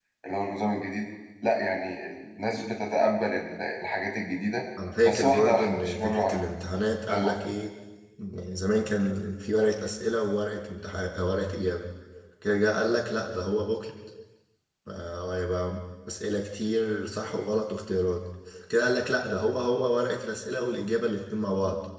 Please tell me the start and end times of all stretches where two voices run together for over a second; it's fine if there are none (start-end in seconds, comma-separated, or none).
5.0-6.4